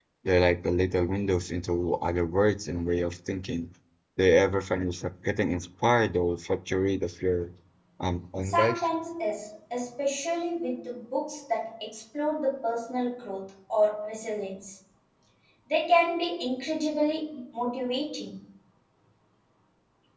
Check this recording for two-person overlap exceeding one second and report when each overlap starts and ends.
none

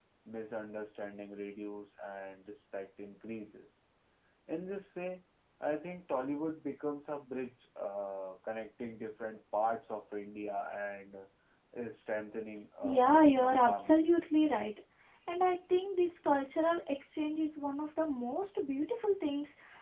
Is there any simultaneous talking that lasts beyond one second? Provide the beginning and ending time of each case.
12.8-14.1

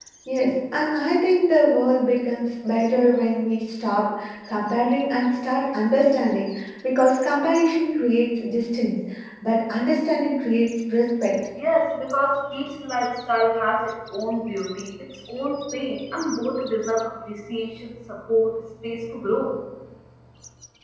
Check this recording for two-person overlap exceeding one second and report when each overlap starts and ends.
none

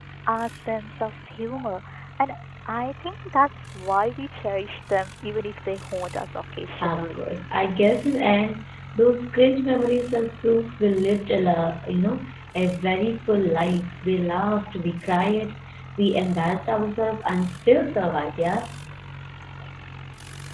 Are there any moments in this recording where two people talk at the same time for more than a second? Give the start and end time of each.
none

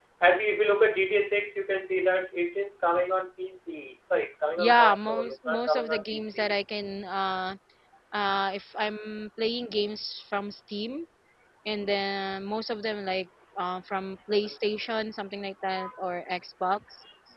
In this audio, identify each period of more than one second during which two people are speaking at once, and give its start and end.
4.6-6.5

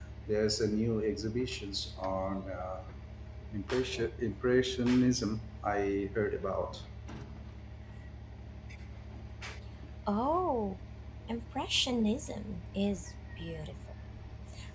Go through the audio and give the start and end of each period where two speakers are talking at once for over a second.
none

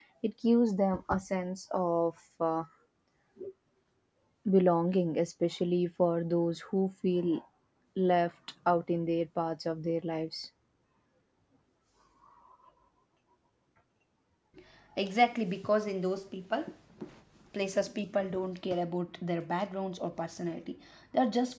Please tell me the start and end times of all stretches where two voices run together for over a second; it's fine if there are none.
none

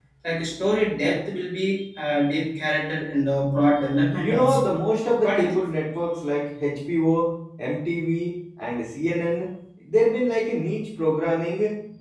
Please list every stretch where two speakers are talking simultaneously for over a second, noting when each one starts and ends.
none

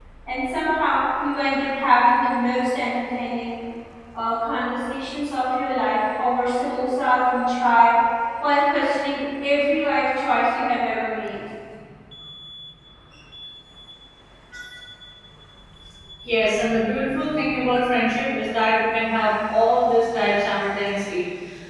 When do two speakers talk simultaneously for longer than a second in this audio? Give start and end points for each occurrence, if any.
none

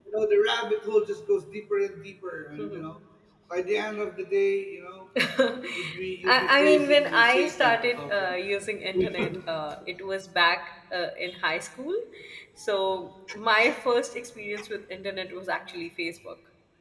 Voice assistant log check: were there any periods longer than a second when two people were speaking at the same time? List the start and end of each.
6.2-8.4

